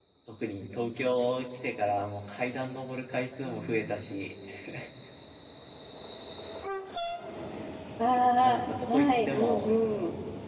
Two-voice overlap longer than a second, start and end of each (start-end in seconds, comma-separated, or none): 8.4-9.7